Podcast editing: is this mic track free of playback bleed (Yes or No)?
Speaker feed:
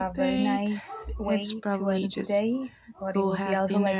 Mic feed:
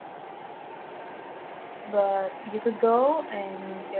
Yes